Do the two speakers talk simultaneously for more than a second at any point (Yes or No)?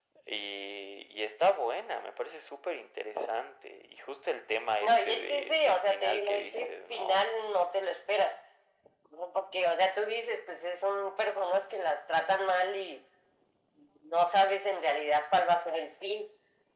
Yes